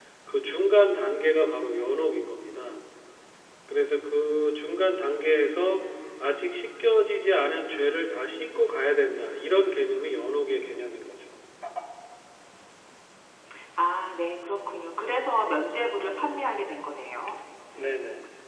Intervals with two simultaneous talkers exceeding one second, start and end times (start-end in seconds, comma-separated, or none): none